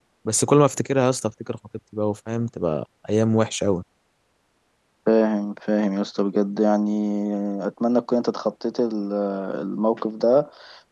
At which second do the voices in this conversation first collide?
none

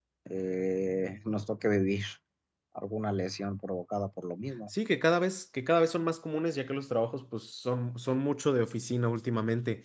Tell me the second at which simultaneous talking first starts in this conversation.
none

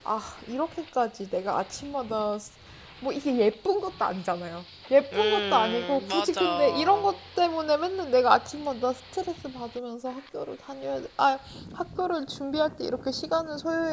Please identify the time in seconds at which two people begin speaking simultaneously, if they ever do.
5.1 s

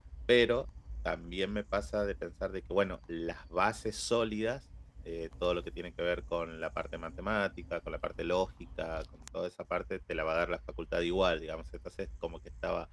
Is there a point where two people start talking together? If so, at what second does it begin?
none

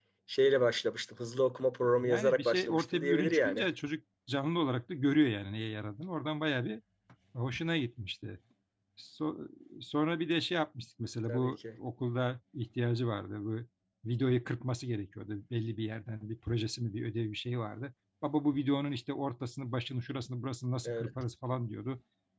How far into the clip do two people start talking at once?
2.0 s

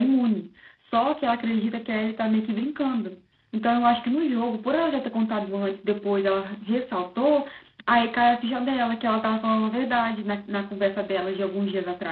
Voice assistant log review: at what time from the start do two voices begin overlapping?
none

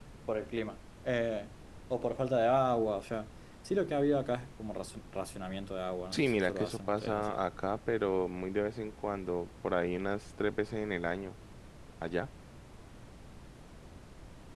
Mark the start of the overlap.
6.1 s

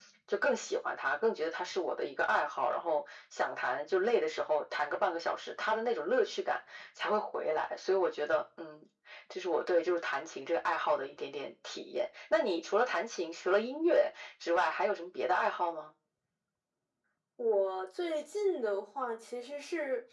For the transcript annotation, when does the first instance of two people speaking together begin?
none

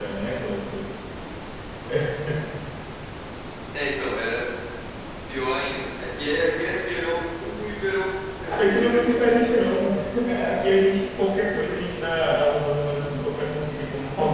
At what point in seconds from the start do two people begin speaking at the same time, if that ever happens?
8.4 s

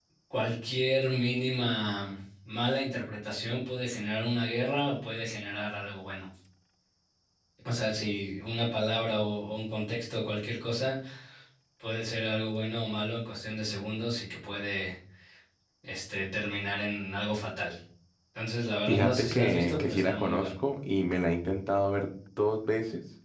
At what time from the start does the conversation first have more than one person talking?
18.9 s

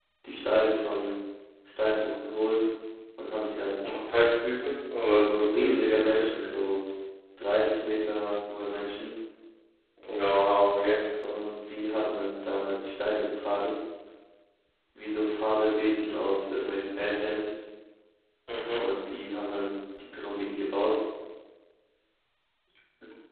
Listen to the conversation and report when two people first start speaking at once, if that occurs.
5.2 s

